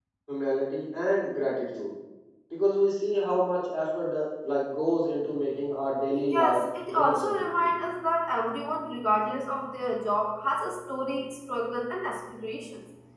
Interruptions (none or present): present